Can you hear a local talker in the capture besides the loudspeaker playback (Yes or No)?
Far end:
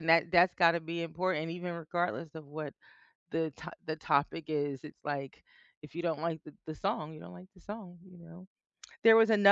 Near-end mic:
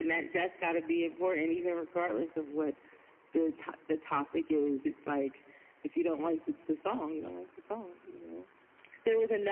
No